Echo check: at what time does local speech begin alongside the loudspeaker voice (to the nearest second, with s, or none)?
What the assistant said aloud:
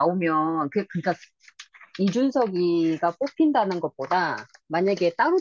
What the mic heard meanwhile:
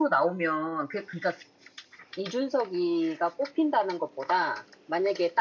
none